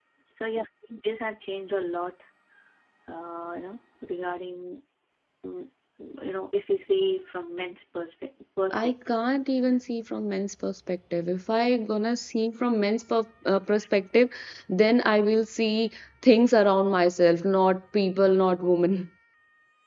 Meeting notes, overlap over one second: none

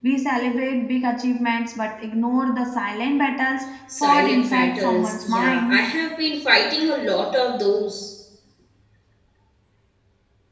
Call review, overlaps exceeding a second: present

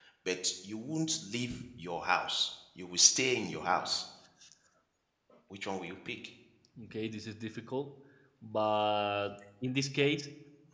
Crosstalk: none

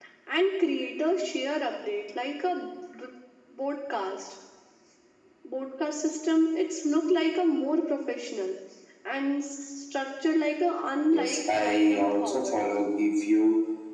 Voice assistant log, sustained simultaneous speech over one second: present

